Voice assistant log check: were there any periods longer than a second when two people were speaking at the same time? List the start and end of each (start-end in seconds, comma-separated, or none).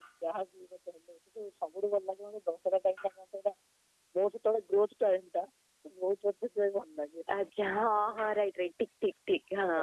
none